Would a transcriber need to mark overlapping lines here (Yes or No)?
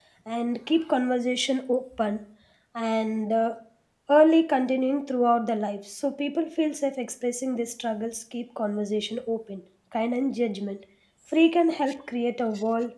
No